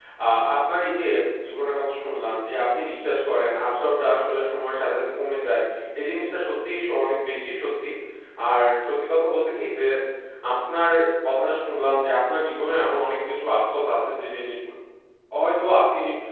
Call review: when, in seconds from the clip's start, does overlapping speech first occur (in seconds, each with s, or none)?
none